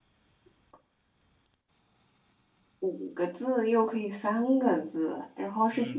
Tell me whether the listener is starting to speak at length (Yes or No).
Yes